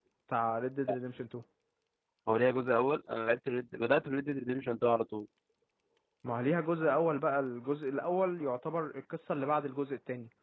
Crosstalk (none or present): none